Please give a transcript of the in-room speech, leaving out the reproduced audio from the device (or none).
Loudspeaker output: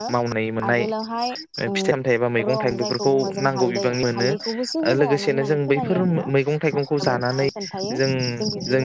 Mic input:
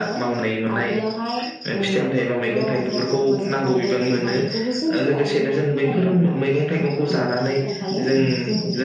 none